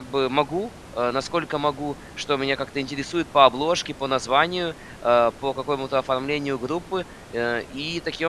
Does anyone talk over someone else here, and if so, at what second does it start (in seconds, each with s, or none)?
none